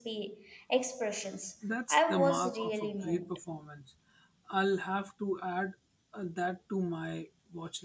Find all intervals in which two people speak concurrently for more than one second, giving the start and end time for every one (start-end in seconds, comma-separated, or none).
1.9-3.4